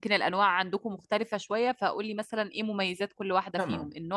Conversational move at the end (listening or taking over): taking over